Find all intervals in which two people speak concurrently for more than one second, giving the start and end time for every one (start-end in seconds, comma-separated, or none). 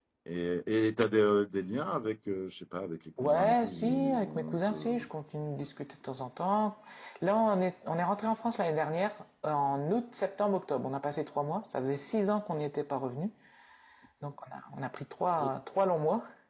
3.2-5.1